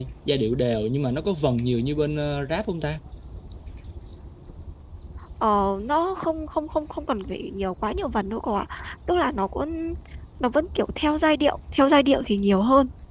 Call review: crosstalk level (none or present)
none